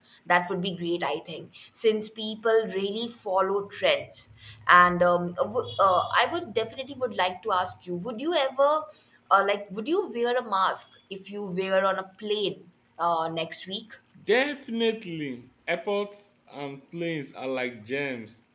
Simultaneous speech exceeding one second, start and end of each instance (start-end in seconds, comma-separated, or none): none